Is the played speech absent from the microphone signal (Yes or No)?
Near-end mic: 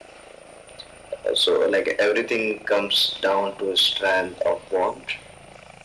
No